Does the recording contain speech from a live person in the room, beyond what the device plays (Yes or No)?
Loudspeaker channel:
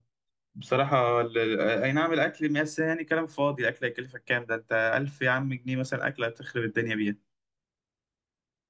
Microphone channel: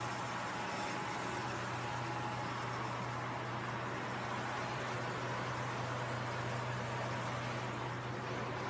No